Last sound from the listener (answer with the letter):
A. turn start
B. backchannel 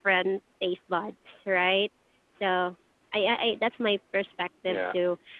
B